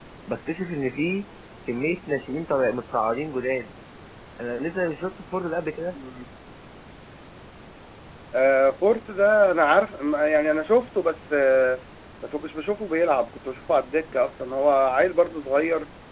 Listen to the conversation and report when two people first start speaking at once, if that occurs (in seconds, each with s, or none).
none